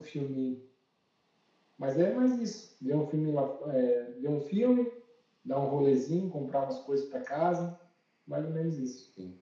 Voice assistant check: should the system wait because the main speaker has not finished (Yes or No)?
No